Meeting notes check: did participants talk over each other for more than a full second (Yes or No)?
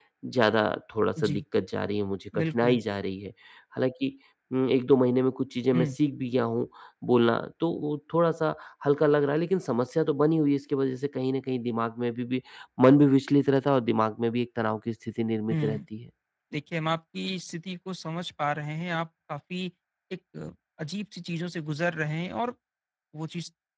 No